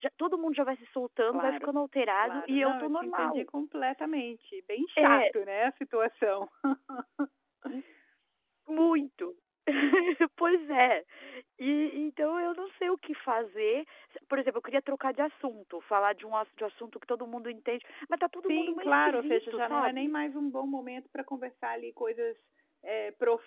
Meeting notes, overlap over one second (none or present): present